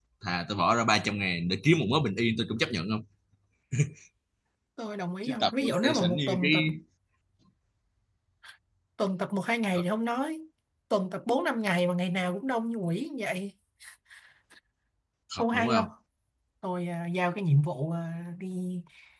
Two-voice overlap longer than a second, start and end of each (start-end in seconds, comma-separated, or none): 5.2-6.5